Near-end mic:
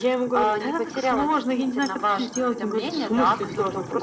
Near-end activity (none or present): none